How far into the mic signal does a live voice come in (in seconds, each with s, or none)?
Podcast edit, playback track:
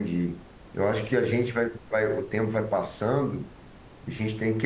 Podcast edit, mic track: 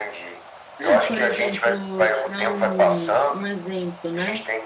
0.8 s